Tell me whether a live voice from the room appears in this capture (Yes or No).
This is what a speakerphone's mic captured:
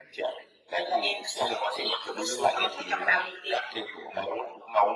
No